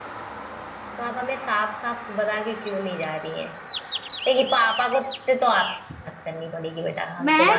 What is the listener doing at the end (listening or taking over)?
taking over